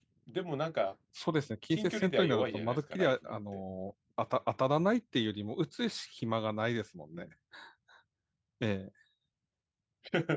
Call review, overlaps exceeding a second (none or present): present